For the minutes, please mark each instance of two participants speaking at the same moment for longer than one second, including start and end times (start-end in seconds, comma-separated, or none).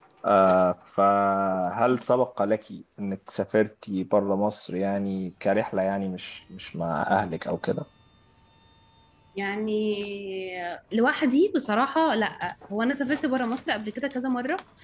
none